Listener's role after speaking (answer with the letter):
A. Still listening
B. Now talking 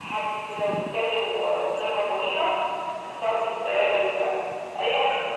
A